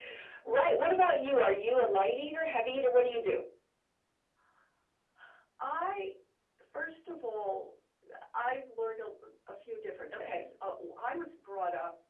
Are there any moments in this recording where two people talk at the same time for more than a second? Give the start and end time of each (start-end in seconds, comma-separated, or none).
none